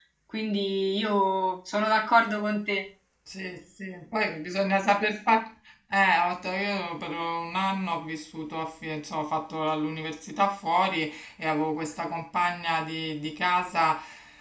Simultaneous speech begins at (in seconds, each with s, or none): none